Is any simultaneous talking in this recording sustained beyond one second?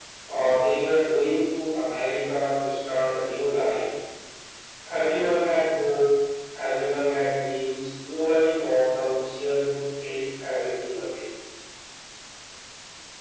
No

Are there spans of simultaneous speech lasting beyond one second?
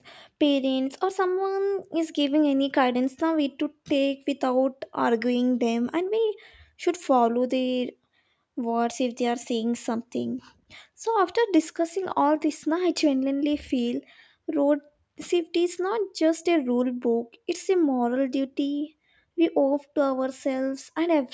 No

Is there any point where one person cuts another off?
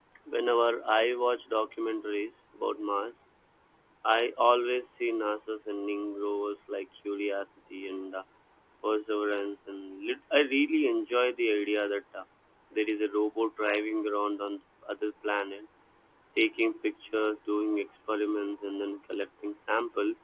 No

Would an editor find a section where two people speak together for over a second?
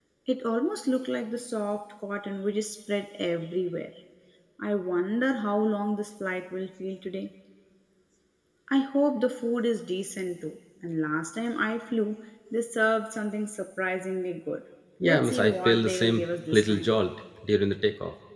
Yes, from 15.0 s

